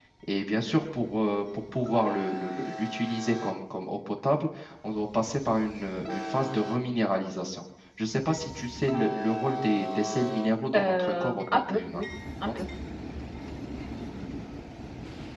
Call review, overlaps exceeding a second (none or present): present